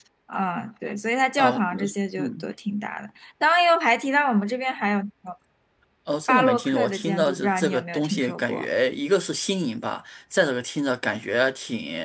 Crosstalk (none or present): present